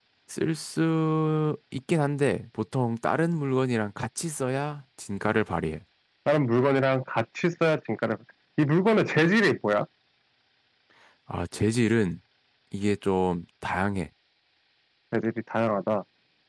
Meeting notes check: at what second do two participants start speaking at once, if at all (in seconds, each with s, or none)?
none